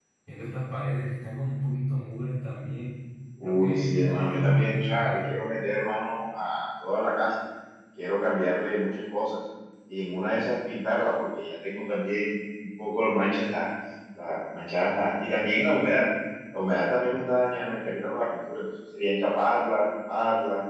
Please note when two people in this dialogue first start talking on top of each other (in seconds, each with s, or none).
3.4 s